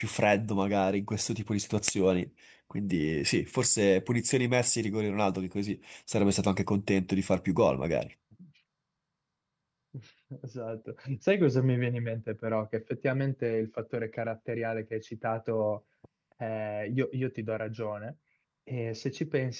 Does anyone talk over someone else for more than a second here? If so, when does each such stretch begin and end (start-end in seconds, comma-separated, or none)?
none